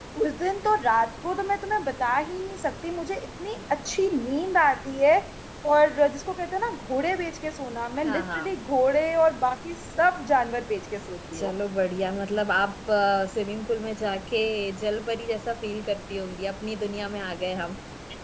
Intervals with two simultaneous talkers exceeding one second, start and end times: none

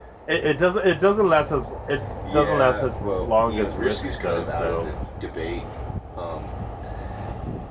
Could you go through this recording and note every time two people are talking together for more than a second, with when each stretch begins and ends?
2.3-4.8

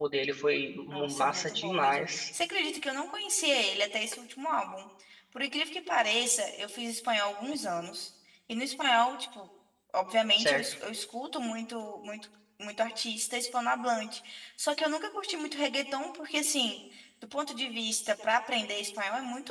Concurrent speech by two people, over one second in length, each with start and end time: 0.9-2.2

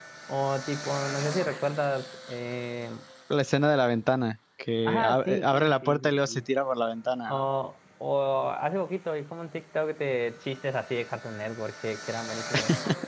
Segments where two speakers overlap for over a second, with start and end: 4.8-6.4

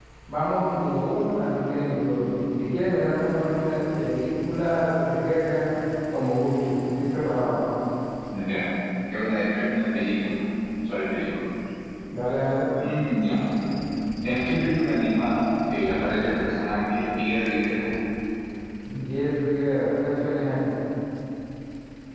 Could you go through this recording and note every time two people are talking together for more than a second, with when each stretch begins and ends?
none

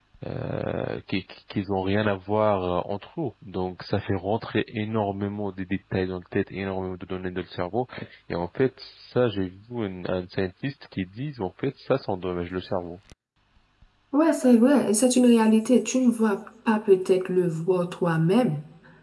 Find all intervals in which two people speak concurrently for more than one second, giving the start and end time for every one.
none

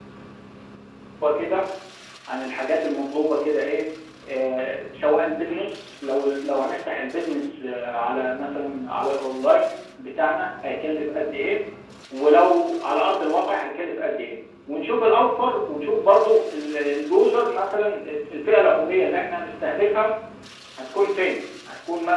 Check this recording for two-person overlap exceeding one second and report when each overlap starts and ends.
none

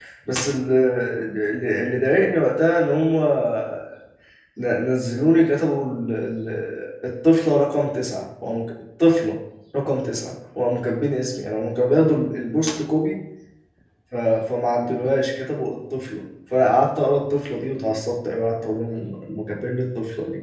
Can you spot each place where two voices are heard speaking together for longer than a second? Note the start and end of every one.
none

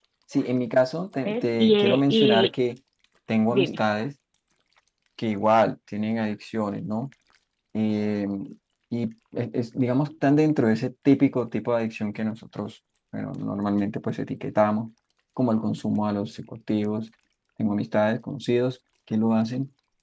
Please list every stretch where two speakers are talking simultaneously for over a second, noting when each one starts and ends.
1.2-2.5

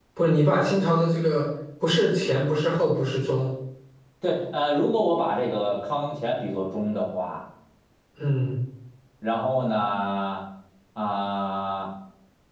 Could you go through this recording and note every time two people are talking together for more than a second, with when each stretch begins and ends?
none

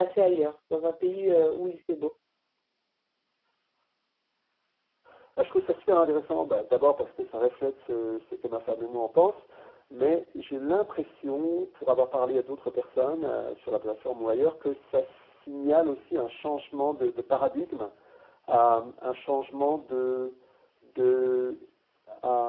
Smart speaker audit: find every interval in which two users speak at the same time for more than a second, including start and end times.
none

